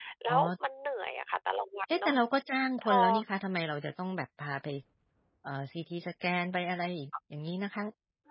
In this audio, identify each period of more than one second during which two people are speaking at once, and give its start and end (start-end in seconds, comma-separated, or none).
none